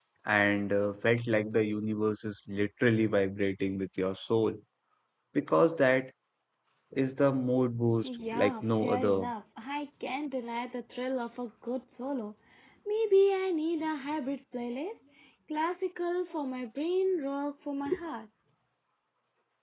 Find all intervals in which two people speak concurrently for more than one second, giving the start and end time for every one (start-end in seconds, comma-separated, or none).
8.0-9.3